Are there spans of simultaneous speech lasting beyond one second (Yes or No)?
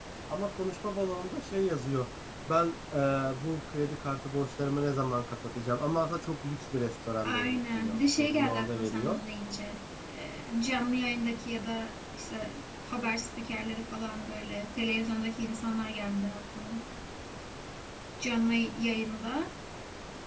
Yes